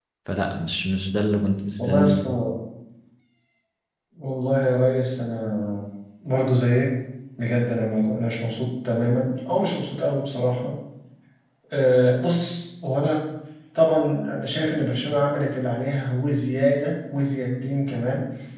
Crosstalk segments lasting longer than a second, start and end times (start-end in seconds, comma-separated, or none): none